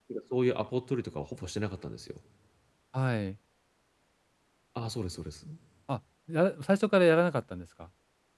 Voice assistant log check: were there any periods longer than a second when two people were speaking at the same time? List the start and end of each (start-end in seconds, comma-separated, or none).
none